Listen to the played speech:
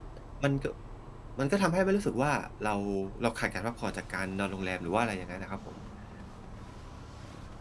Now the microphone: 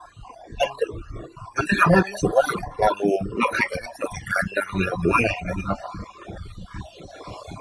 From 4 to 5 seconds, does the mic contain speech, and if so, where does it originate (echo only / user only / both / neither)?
echo only